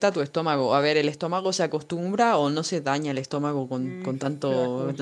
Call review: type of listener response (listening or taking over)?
taking over